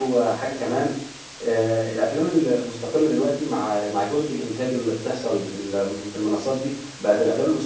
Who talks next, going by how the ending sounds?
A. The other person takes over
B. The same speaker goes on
B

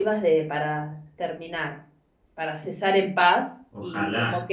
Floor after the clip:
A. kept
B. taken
A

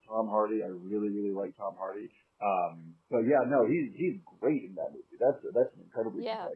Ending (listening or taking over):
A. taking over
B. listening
A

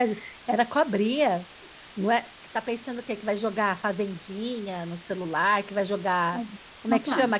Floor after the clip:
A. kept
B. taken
A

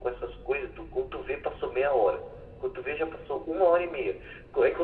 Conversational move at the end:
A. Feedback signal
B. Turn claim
A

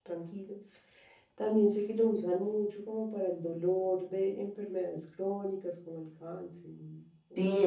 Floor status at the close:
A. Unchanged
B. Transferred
B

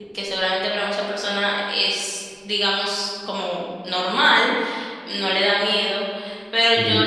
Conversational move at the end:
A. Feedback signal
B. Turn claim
A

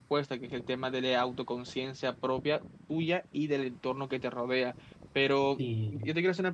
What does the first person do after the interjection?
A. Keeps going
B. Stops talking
A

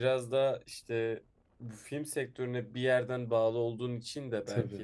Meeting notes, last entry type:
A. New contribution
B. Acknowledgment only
B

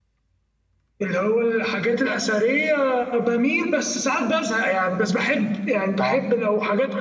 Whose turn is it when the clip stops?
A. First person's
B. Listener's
A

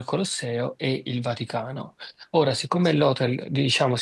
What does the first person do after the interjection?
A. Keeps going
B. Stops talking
A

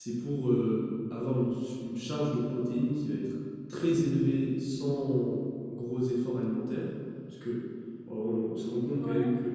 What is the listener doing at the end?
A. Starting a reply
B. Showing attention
B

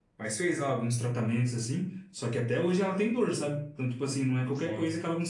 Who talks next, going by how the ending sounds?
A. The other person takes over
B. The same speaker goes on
B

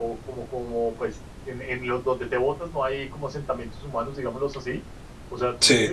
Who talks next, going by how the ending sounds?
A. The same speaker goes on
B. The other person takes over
A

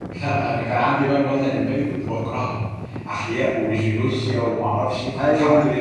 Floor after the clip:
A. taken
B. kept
B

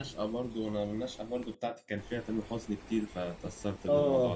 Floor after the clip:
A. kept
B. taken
B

